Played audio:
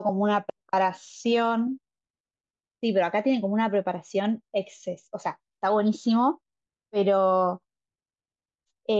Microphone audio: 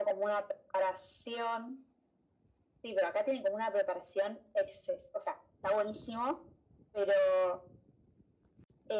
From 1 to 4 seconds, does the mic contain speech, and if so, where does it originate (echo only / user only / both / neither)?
echo only